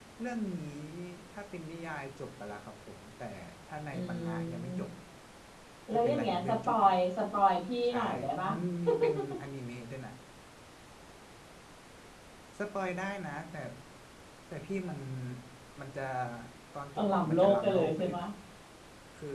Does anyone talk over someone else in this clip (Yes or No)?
Yes